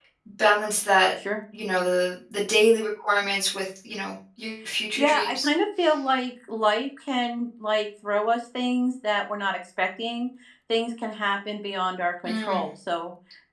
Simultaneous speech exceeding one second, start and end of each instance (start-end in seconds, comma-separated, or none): none